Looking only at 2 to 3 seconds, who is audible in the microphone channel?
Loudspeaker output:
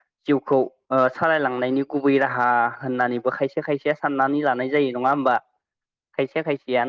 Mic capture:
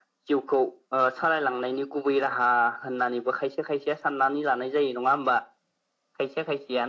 echo only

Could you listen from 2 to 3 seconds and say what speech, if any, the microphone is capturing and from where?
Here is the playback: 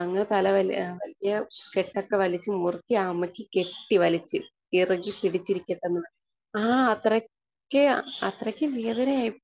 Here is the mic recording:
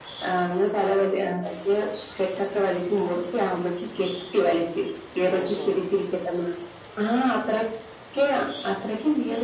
echo only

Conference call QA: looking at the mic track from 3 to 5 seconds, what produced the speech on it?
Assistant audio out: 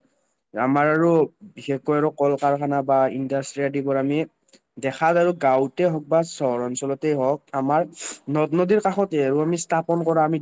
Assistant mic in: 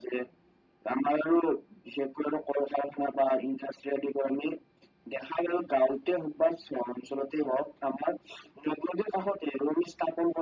echo only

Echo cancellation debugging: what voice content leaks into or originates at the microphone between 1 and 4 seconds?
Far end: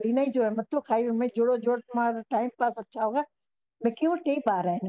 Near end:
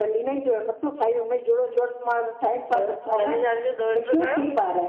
both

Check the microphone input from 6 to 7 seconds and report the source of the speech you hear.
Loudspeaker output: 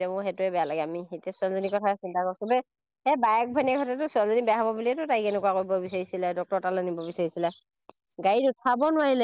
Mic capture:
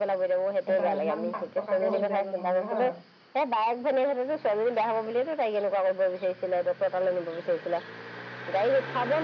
echo only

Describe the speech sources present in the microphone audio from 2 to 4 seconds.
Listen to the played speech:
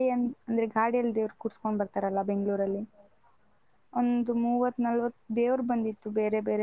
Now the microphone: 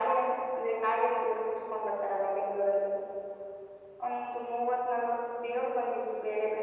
echo only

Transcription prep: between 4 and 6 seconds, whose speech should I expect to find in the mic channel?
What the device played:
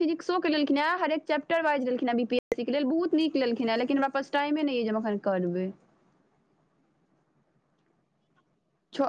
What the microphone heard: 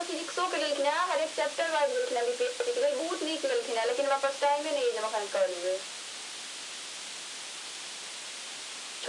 echo only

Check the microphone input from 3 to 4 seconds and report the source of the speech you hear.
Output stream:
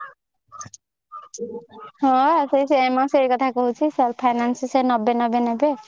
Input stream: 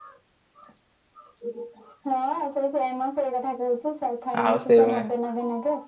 echo only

